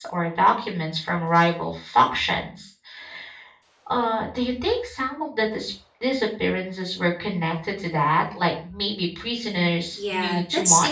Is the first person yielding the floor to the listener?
Yes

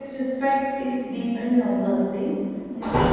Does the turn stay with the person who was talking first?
Yes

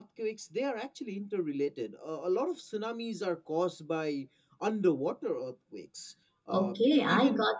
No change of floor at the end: No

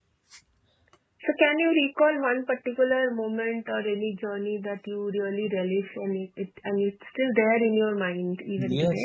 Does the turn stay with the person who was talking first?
No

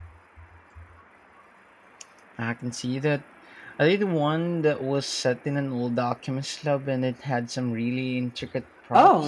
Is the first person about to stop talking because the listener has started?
Yes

